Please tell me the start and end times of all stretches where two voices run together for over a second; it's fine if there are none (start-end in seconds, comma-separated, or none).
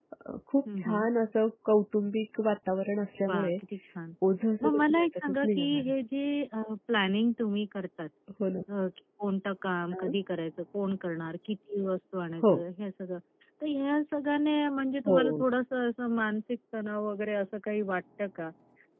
4.6-5.9